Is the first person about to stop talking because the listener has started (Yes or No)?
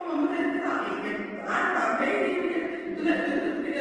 No